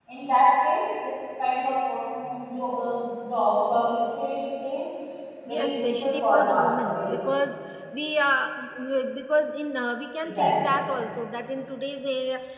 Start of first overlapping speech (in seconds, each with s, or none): 5.5 s